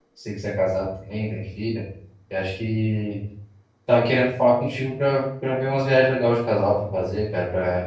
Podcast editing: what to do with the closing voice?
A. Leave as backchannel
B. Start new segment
A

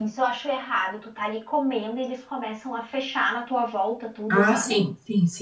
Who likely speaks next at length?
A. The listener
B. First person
A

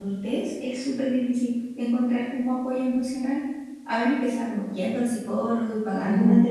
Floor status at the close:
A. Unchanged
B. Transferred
B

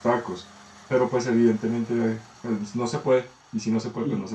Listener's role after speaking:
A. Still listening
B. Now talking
B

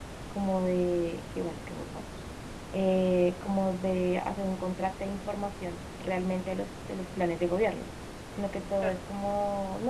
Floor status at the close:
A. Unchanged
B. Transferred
A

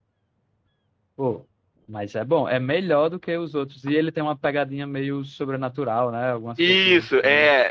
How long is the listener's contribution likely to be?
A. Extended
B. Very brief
A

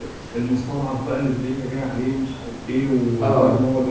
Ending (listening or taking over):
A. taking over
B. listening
B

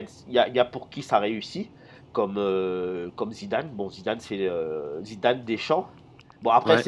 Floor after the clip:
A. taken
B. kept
B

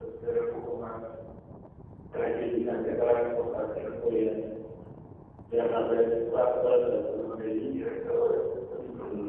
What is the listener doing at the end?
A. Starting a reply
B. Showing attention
B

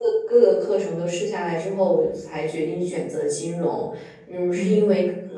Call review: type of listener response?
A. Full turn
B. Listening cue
B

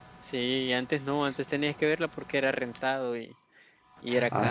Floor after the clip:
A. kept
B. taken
B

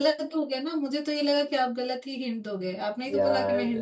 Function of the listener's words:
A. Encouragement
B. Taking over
B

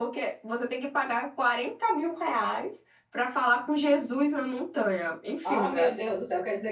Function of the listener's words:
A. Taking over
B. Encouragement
A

